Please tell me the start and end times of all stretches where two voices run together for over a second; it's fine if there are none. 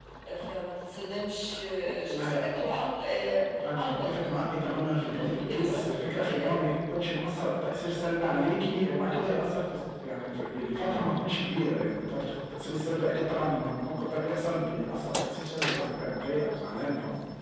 4.6-6.6

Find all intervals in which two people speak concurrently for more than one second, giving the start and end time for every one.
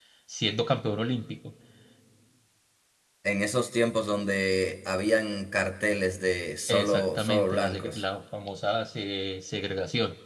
6.8-8.0

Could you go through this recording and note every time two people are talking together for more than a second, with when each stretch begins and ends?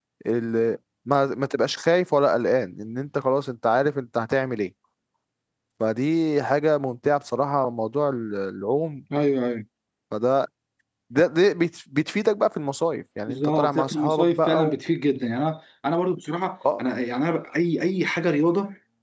13.3-14.7

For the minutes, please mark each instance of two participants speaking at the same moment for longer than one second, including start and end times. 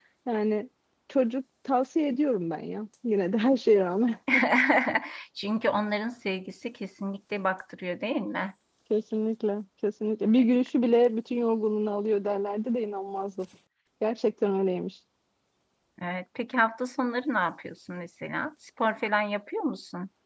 none

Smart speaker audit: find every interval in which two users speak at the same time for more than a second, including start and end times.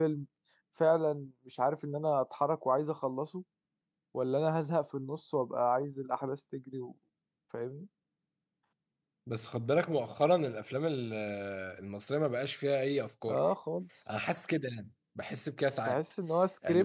none

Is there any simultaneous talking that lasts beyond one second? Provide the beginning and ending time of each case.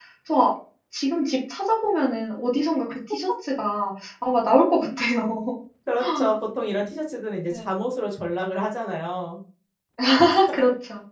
none

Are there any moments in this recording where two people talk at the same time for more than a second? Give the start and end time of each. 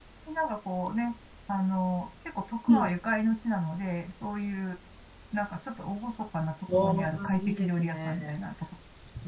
6.7-8.2

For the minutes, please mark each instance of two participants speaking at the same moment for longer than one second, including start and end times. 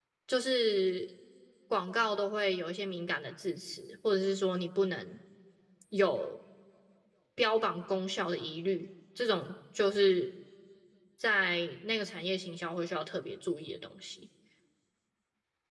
none

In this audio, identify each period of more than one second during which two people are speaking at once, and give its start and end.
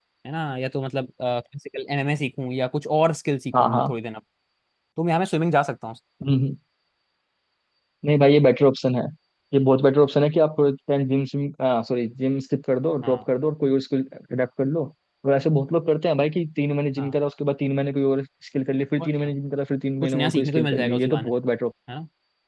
20.0-21.3

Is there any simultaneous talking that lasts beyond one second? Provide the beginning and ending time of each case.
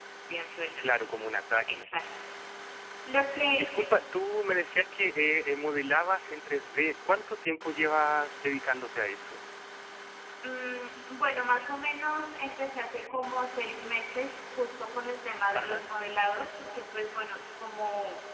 none

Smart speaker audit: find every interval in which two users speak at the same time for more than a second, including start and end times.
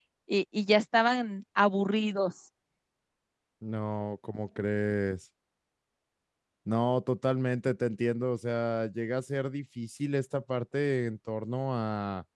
none

